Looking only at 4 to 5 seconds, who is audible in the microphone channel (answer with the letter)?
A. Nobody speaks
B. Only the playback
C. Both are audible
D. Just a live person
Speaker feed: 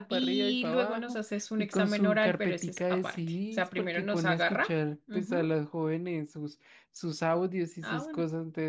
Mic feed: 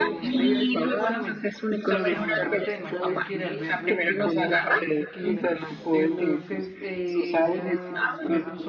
C